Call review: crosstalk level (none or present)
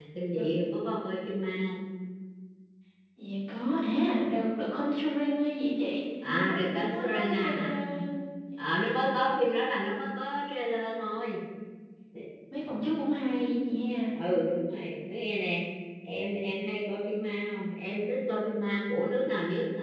present